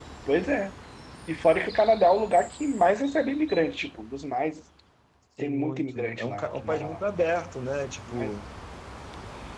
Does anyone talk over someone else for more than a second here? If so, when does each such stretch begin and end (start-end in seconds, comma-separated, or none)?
5.4-7.0